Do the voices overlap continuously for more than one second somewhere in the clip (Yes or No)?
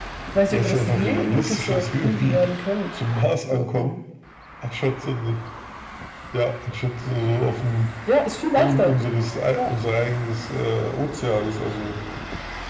Yes